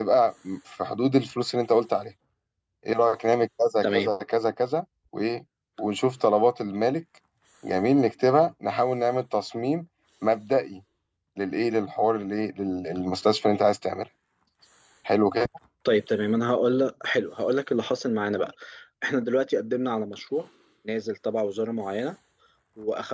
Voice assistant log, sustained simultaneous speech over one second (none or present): none